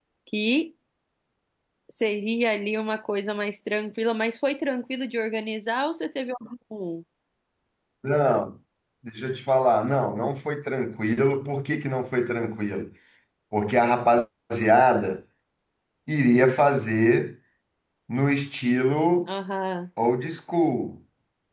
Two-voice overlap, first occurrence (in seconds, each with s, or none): none